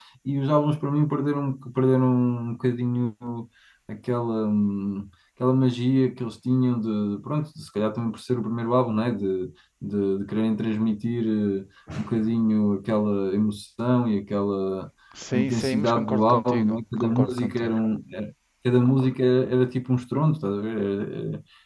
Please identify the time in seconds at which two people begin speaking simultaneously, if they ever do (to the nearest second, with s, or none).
15 s